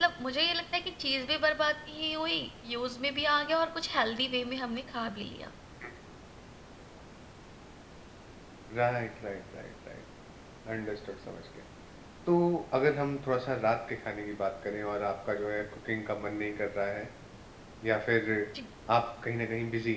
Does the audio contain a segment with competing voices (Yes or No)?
No